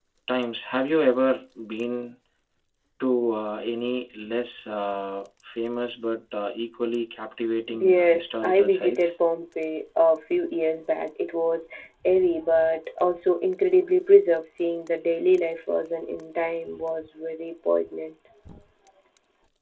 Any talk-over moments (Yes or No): Yes